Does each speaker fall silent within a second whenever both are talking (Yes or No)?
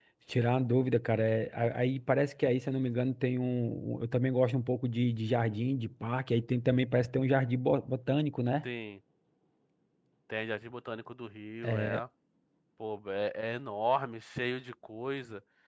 Yes